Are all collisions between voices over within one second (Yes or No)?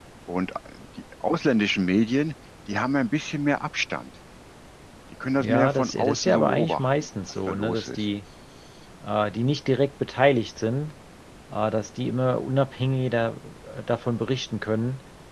No